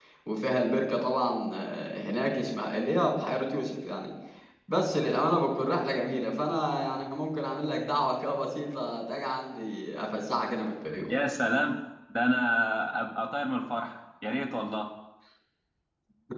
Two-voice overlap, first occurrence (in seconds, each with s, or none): none